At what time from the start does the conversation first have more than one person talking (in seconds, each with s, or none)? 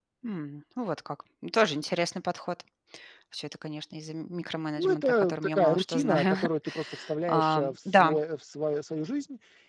4.8 s